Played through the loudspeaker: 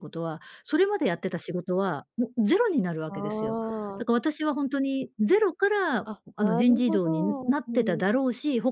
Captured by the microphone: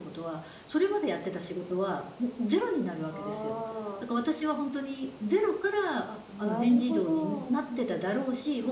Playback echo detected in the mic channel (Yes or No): Yes